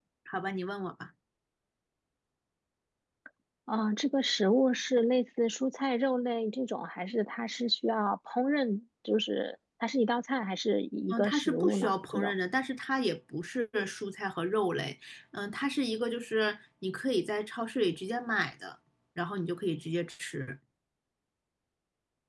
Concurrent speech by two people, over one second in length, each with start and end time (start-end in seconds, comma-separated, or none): 11.1-12.3